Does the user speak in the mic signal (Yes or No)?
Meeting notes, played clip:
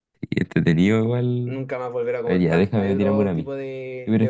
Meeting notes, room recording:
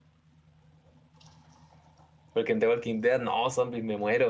Yes